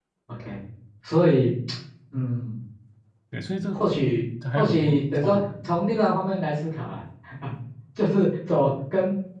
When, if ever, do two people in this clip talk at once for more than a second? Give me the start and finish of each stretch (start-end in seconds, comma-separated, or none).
4.5-5.8